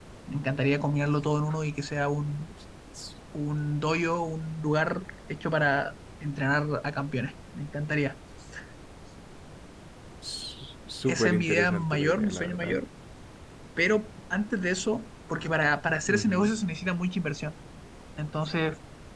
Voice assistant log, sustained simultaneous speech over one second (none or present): present